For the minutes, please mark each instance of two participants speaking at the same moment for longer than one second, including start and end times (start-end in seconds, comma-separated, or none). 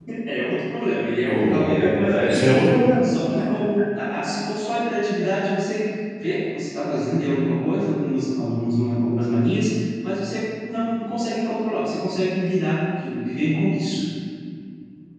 1.2-2.5